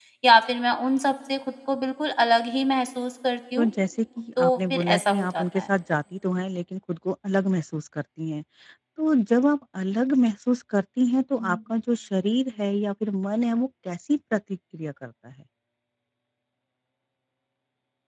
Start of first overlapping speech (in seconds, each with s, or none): 4.4 s